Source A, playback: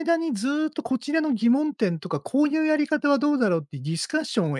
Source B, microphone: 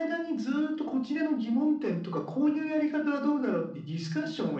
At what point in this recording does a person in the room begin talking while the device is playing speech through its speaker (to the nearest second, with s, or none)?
none